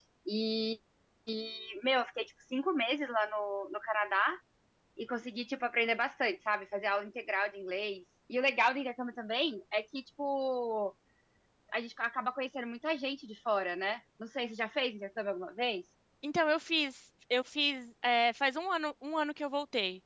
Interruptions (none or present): none